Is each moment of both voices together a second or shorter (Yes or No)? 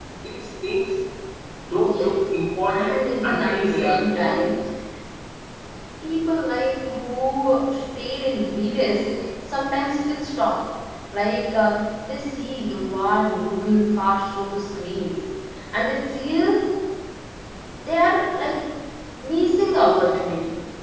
No